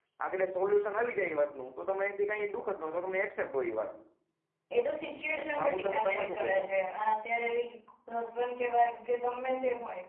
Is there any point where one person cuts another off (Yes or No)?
Yes